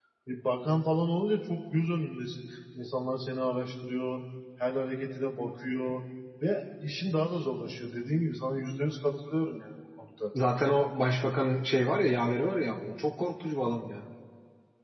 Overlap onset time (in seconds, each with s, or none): none